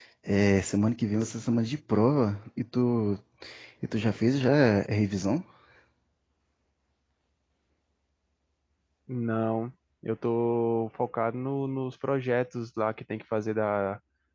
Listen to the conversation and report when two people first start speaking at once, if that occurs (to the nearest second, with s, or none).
none